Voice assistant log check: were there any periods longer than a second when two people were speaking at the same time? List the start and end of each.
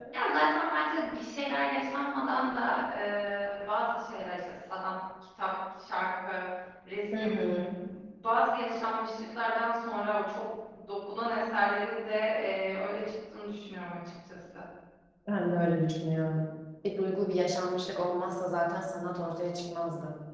none

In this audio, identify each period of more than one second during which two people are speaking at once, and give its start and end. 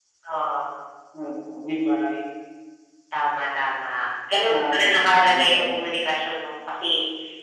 4.5-6.0

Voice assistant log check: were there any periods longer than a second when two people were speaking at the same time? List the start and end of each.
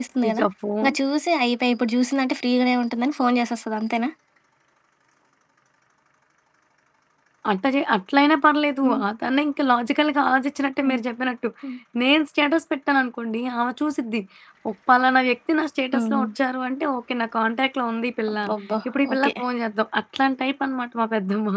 none

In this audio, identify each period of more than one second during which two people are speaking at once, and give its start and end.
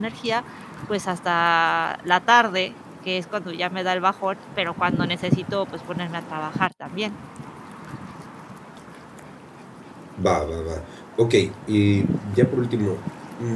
none

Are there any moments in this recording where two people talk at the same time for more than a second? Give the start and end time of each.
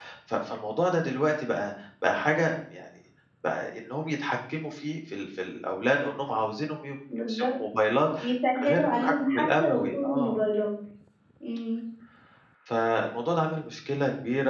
8.6-10.4

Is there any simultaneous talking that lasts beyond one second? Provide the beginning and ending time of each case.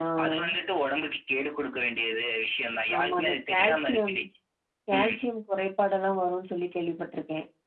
2.9-4.2

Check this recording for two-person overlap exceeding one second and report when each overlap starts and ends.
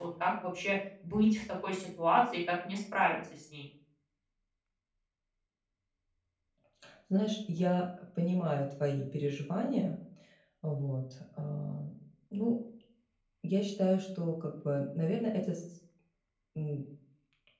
none

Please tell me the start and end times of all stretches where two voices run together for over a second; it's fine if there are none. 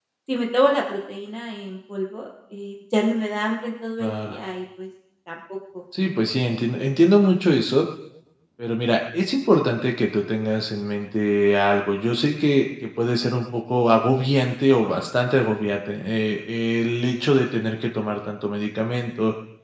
none

